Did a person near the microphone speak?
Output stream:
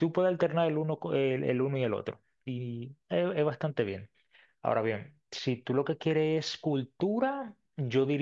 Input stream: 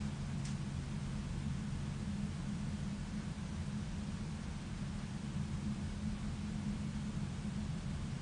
No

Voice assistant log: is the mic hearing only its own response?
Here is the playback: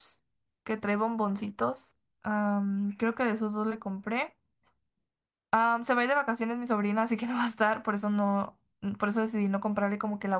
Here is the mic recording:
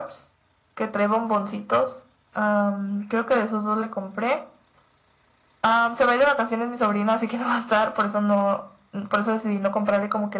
Yes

